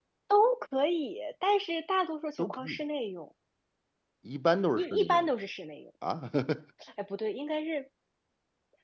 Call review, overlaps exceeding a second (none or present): none